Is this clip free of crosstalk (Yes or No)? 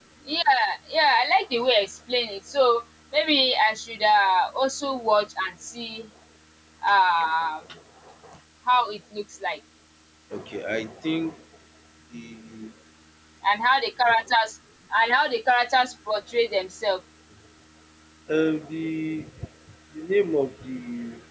Yes